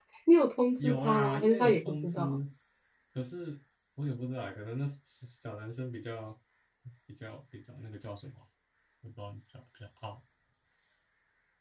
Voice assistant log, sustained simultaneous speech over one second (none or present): present